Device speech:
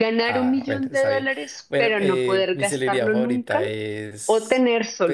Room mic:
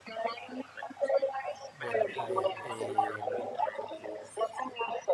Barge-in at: 2 s

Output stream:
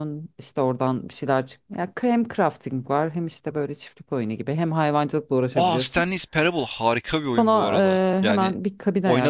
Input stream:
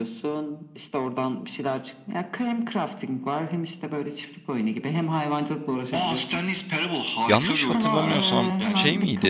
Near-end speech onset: 7 s

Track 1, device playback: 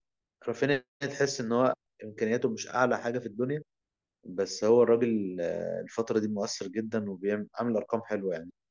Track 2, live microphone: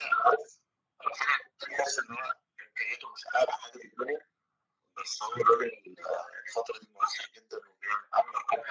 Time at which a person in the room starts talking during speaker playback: none

